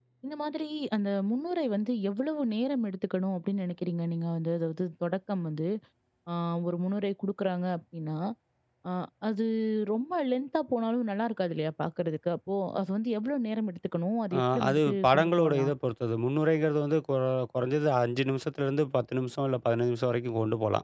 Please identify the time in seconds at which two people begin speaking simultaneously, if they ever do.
14.3 s

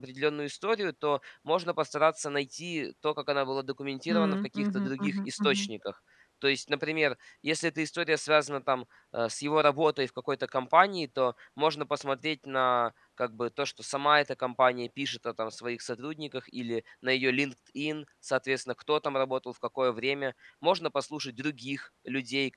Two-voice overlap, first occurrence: 4.1 s

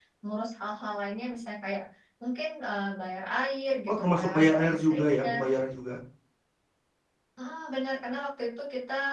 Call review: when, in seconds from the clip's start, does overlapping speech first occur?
3.9 s

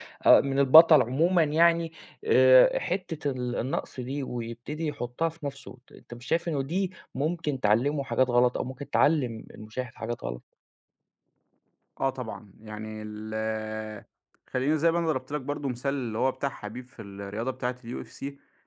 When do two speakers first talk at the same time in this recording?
none

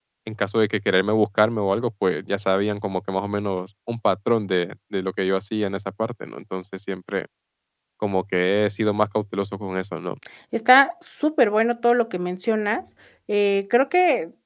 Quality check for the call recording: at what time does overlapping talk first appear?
none

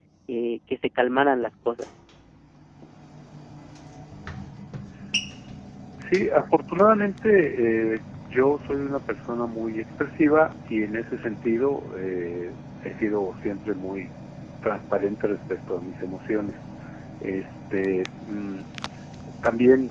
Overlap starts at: none

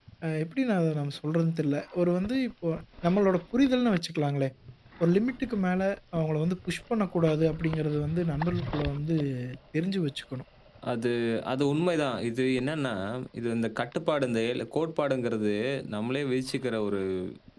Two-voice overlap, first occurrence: none

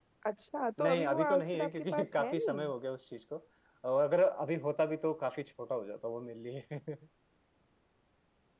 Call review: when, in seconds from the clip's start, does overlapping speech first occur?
0.8 s

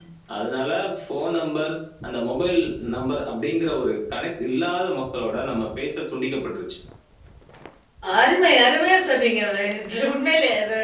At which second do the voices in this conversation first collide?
none

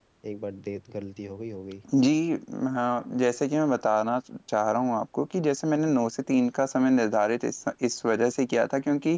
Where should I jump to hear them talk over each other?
none

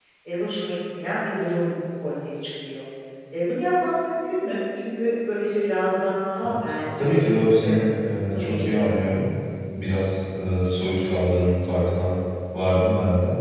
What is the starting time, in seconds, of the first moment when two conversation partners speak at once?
6.4 s

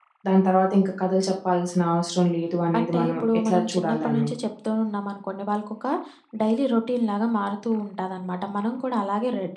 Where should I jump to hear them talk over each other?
2.7 s

